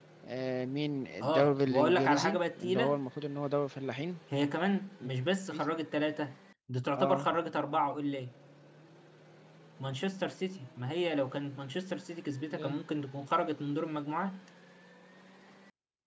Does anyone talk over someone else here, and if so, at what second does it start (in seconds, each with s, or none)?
1.2 s